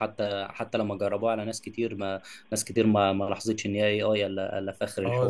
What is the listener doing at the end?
taking over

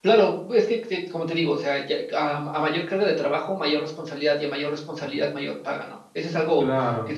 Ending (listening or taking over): listening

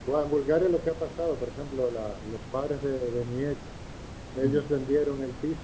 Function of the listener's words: listening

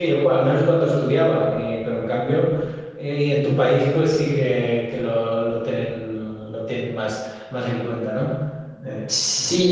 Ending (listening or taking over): taking over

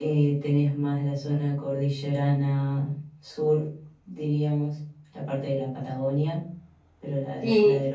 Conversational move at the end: taking over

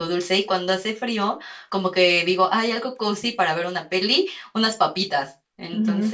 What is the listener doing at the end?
listening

